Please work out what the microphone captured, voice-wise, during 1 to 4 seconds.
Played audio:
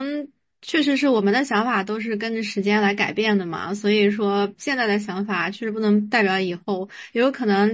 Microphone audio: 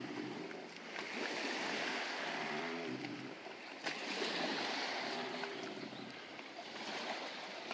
neither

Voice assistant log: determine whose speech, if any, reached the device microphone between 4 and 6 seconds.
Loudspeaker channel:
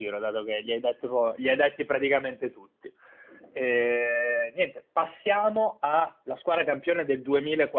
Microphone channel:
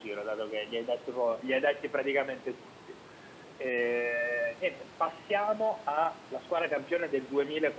echo only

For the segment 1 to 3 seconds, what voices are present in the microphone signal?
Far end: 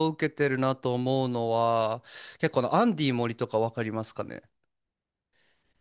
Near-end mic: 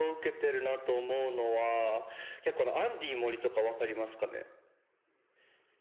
echo only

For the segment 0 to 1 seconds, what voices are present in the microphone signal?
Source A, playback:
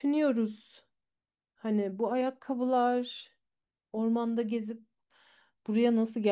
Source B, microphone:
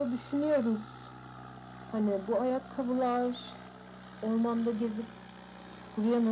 echo only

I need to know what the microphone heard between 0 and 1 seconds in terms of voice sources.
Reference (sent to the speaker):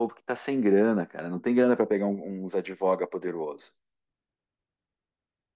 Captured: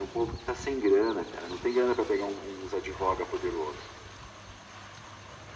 echo only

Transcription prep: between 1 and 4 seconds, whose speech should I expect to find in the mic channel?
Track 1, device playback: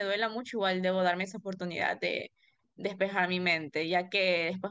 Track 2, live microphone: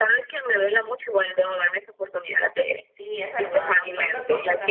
both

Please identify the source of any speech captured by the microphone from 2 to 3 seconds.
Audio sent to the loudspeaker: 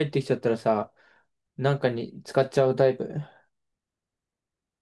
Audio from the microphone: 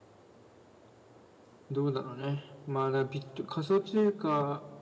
user only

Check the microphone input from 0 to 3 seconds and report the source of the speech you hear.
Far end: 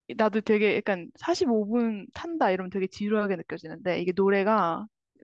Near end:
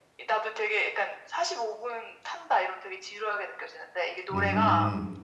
echo only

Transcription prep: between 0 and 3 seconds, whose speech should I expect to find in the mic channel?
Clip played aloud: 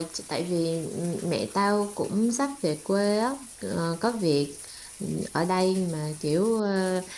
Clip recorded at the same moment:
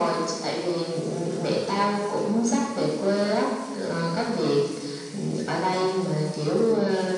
echo only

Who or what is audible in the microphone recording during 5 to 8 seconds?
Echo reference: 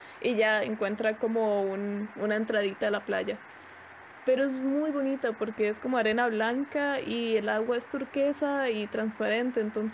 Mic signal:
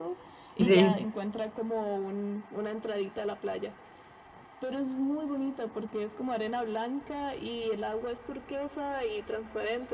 echo only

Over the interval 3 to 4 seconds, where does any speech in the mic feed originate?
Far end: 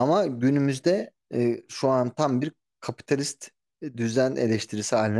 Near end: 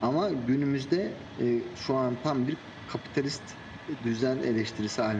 echo only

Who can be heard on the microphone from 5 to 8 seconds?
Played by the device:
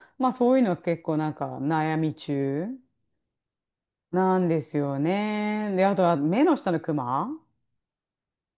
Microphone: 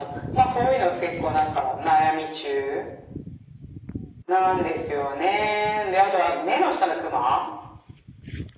echo only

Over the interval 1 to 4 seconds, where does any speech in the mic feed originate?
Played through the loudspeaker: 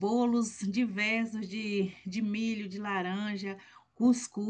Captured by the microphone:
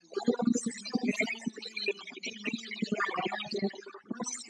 echo only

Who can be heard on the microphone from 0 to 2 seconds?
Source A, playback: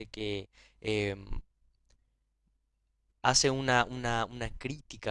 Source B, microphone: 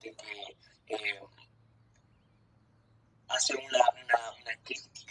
echo only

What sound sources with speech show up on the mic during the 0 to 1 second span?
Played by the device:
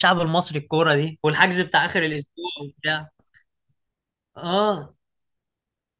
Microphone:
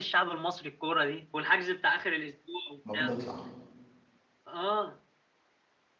echo only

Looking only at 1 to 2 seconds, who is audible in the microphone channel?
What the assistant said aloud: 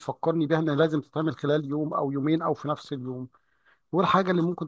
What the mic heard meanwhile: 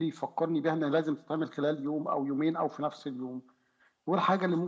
echo only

